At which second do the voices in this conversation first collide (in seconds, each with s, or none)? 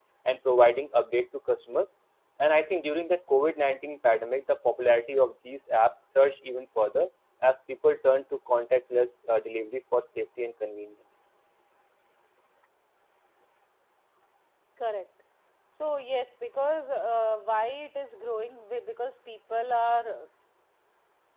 none